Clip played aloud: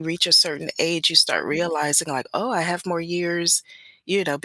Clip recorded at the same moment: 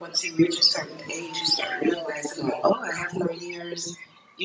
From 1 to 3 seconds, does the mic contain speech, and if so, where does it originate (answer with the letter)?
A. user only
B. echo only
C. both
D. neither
B